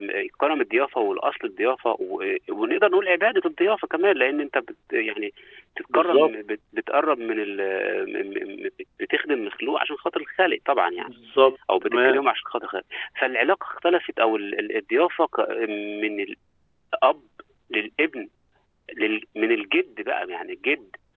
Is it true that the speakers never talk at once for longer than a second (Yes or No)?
Yes